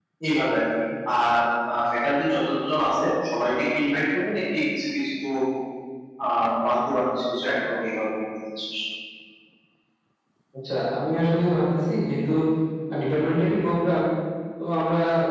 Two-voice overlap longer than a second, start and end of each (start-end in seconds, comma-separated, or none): none